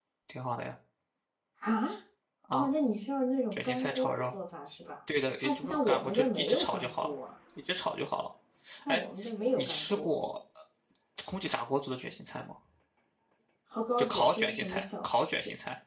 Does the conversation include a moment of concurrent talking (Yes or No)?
Yes